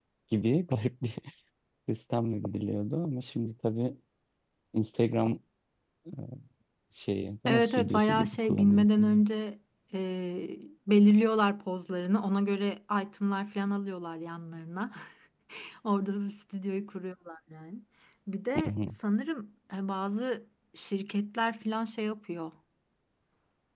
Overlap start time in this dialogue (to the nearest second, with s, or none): 7 s